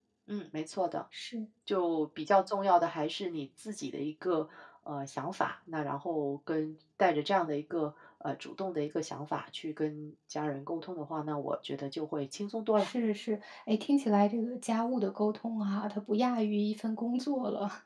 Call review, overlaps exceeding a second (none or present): none